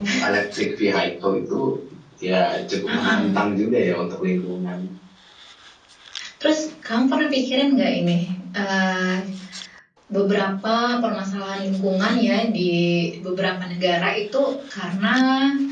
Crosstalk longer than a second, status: none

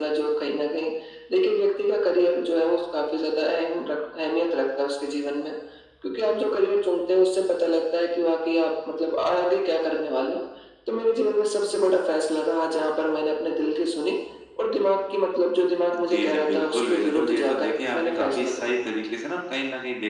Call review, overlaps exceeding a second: present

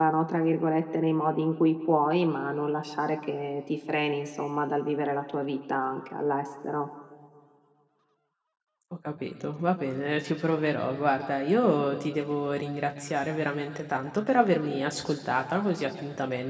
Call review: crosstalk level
none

